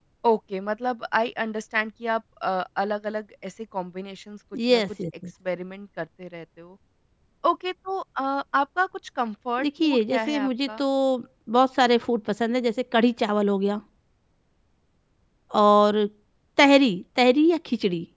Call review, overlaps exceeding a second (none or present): present